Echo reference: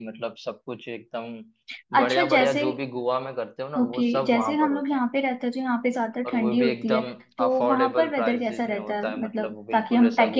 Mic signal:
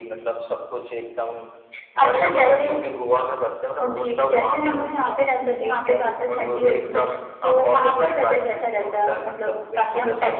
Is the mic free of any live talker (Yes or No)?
No